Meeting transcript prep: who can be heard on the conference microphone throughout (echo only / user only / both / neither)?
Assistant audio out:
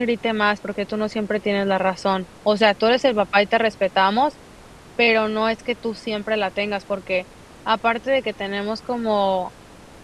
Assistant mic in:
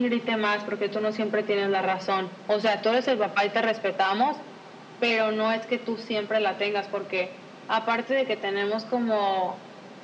echo only